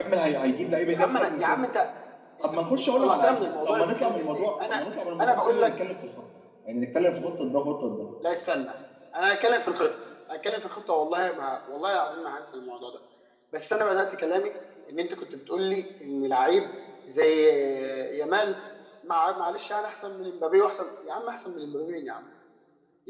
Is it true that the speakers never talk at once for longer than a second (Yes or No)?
No